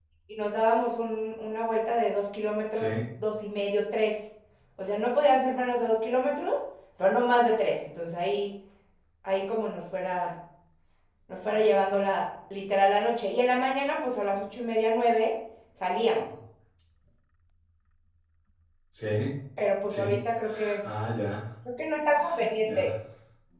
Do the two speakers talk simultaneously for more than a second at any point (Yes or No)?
No